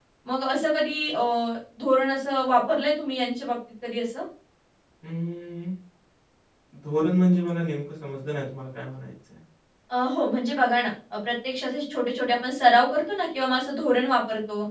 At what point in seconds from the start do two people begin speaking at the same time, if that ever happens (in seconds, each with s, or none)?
none